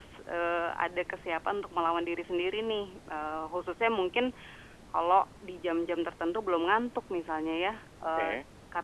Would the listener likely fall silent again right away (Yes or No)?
Yes